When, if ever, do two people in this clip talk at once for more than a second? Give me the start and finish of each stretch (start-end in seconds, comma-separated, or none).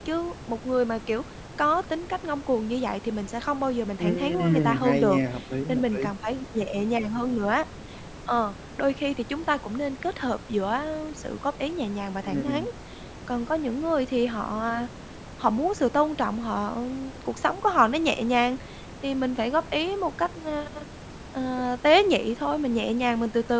4.0-5.2